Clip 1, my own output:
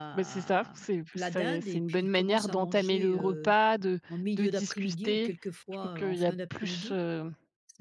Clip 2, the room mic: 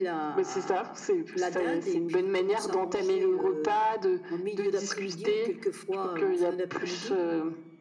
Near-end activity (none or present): none